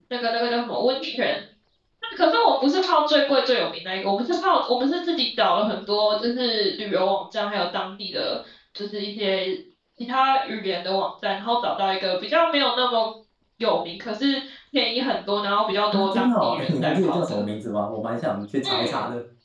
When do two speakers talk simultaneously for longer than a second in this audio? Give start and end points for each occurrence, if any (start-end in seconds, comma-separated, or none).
15.9-17.4